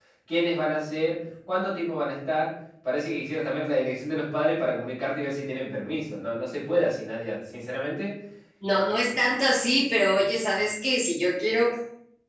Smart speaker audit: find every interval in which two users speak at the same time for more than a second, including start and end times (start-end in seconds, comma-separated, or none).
none